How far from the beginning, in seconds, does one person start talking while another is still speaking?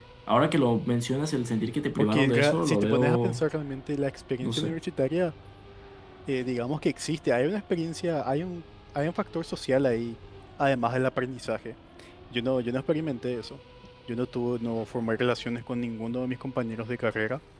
2 s

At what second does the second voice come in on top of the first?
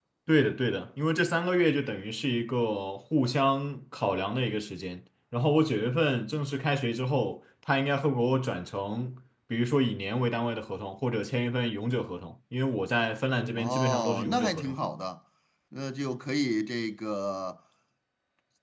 14 s

